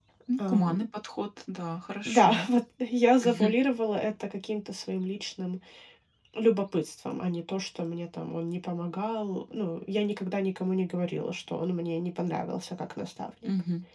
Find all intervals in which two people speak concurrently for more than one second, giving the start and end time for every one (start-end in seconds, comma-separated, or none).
none